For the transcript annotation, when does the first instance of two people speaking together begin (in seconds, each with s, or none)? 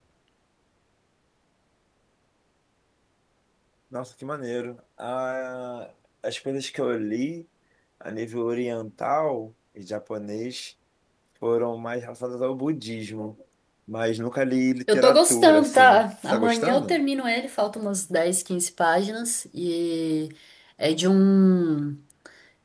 14.9 s